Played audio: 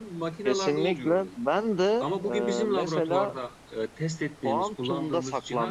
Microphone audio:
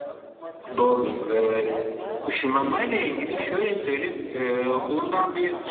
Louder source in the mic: user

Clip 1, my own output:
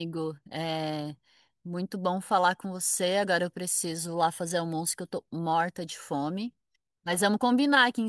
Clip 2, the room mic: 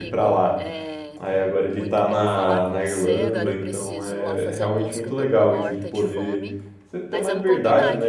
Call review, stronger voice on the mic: user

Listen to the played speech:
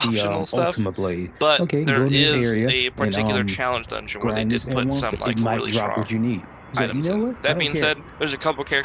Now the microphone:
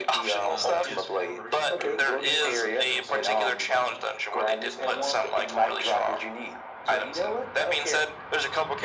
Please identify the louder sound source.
echo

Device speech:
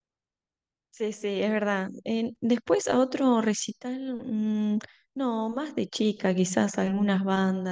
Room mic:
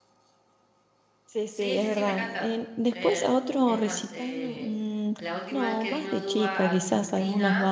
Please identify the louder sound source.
echo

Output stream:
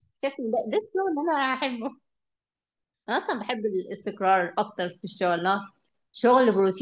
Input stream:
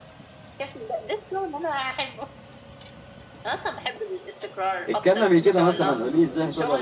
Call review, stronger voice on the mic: user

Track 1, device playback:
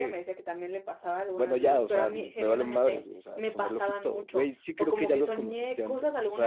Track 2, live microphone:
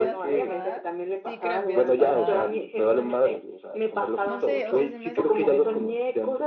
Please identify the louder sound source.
echo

